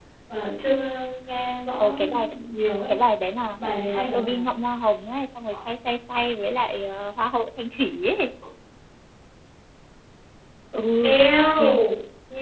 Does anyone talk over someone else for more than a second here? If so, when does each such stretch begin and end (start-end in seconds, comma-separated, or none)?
none